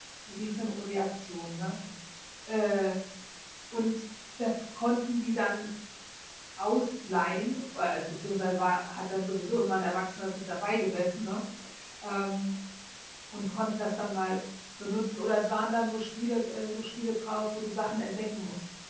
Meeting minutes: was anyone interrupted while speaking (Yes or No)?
No